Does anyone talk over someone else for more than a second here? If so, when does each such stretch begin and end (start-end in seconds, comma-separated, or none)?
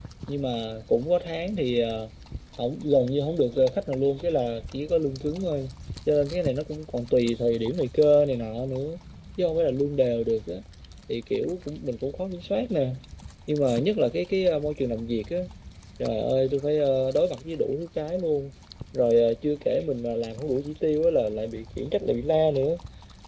none